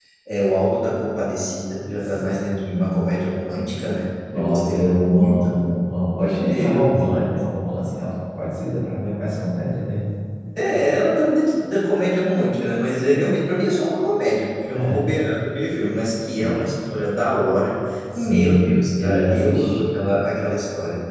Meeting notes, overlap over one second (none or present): present